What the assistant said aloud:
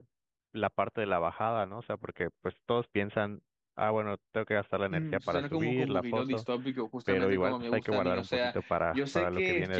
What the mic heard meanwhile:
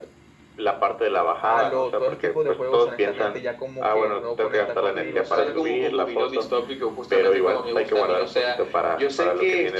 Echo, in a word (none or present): present